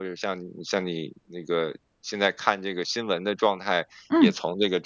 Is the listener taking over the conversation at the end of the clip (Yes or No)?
No